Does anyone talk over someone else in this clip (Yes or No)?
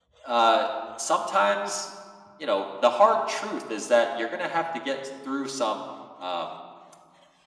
No